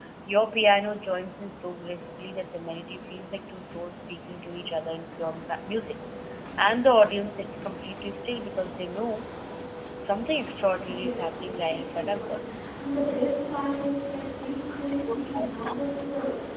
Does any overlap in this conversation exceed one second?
Yes, from 10.8 s

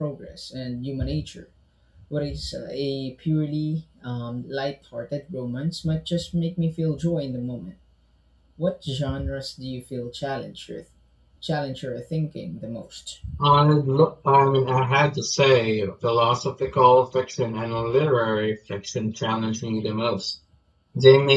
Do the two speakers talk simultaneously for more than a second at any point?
No

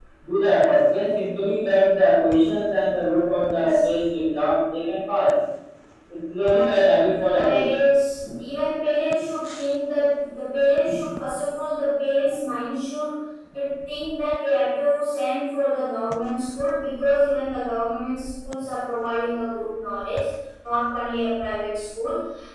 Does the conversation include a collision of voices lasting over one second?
No

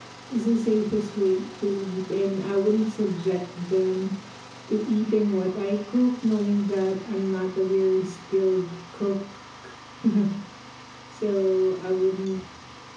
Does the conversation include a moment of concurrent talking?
No

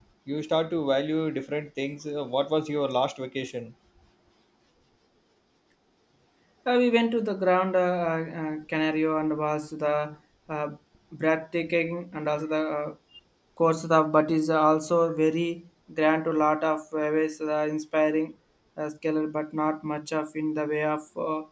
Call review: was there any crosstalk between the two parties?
No

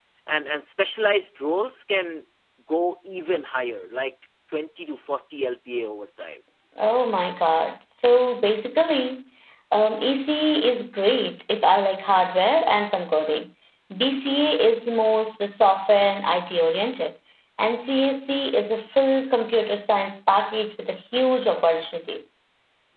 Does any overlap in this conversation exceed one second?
No

